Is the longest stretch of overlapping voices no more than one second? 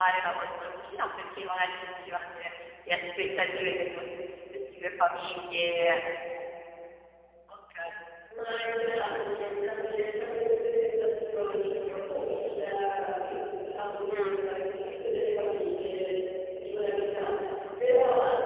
Yes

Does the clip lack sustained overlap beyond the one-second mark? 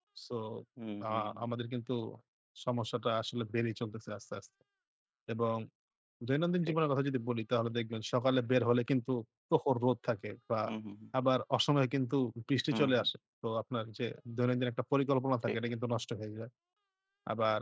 Yes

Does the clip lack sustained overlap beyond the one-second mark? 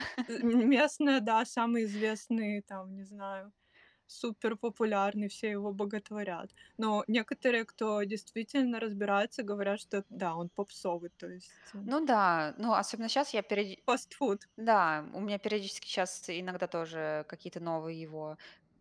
Yes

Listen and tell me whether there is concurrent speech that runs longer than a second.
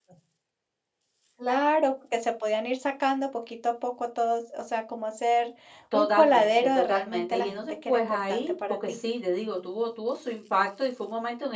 Yes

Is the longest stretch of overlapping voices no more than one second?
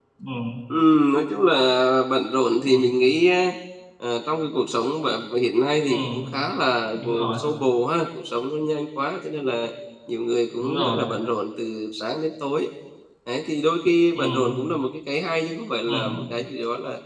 Yes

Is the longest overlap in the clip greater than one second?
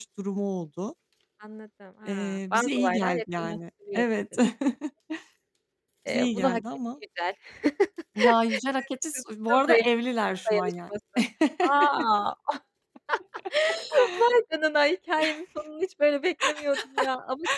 Yes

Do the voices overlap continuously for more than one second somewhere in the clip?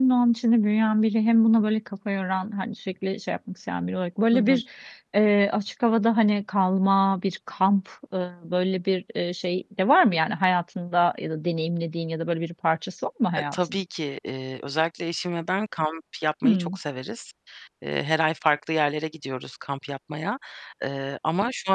No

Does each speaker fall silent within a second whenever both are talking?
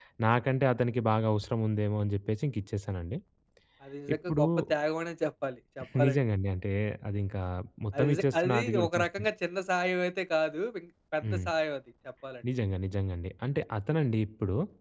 No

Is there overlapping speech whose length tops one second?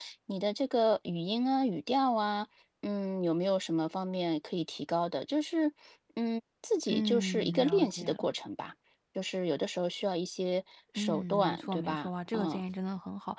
Yes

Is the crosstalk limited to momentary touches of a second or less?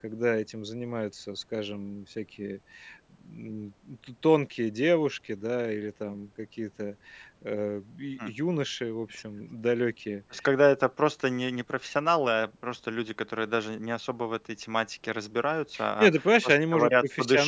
No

